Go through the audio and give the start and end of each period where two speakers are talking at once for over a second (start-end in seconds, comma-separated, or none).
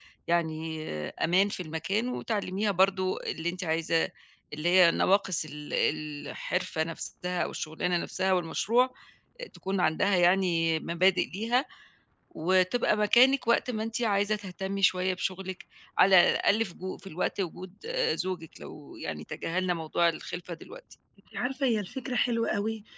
none